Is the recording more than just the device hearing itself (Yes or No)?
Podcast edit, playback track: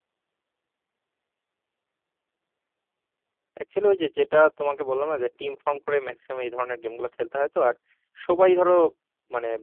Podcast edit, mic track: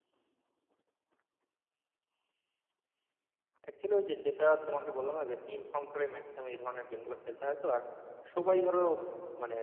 No